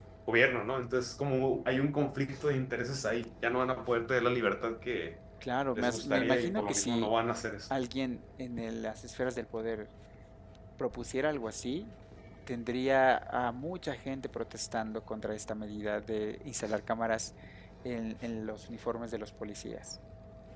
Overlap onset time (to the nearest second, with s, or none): 6 s